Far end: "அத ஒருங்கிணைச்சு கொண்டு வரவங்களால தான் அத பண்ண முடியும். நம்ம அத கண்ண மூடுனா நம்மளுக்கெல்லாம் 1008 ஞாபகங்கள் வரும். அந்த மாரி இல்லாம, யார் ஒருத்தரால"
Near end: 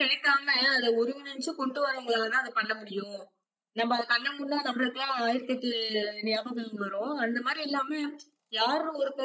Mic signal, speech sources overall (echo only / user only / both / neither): echo only